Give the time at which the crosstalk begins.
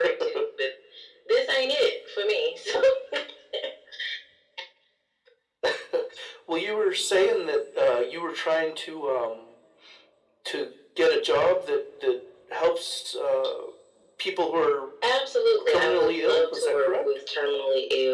15.7 s

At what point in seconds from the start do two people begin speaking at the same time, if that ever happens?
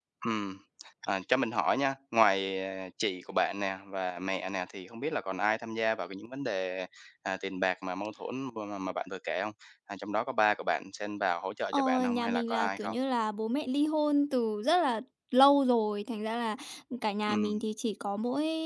11.7 s

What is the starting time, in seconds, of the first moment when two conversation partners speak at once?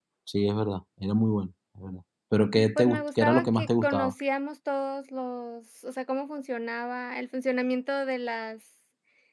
2.5 s

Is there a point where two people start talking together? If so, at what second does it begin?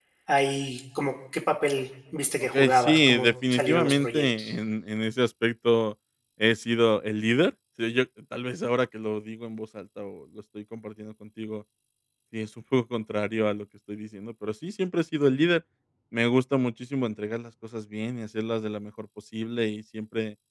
2.5 s

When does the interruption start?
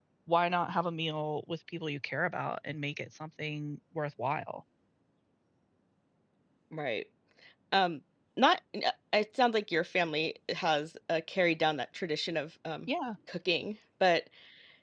none

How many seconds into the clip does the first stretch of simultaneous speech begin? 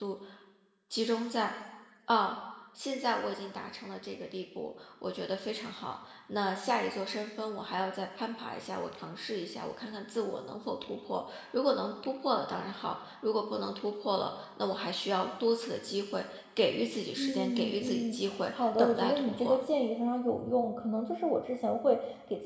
17.2 s

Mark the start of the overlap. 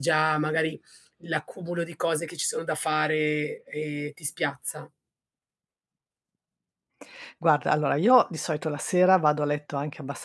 none

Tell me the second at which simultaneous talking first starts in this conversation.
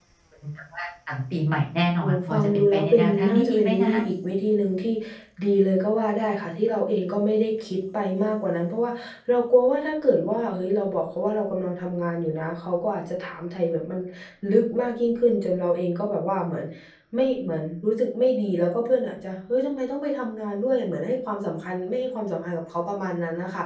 2.0 s

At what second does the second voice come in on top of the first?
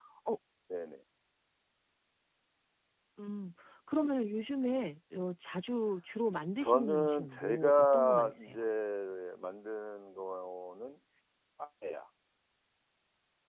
6.6 s

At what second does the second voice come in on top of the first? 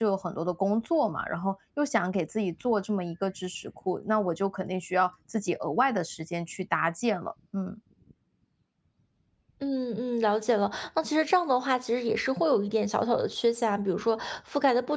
none

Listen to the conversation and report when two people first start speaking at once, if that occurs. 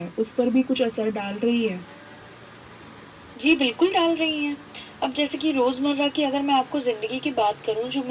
none

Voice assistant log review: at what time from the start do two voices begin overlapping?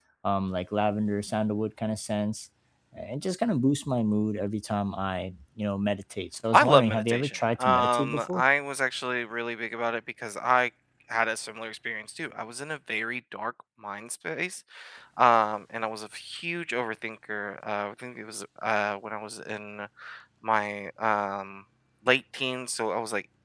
6.5 s

